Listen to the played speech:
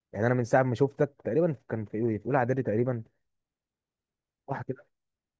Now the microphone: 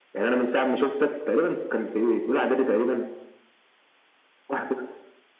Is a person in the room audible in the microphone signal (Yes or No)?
No